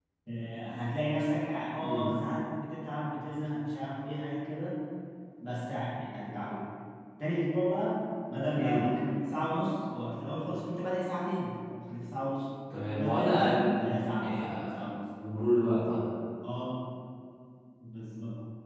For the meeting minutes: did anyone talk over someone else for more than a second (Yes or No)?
Yes